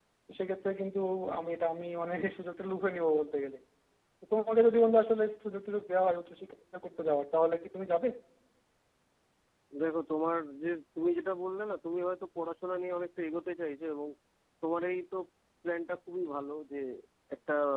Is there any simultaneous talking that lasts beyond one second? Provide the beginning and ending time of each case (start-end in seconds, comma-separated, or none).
none